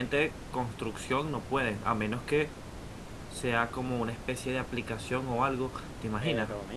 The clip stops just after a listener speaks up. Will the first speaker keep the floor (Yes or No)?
No